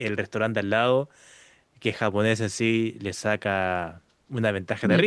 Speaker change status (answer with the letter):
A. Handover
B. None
B